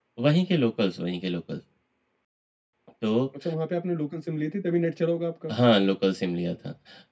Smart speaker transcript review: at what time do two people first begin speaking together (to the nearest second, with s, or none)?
none